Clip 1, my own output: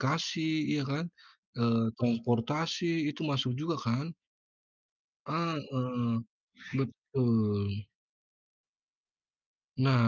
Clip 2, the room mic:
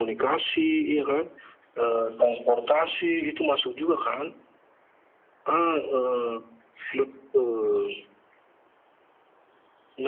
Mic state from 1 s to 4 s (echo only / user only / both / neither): echo only